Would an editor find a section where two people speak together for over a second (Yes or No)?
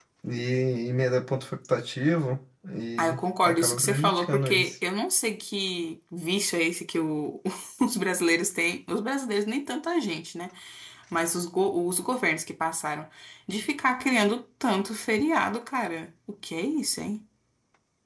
Yes